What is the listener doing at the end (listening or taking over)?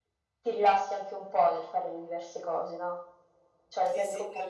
taking over